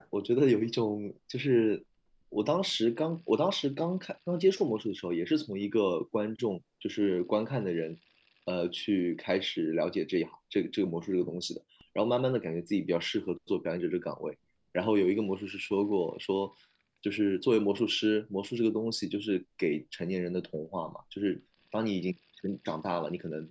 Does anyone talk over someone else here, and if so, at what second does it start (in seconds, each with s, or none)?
none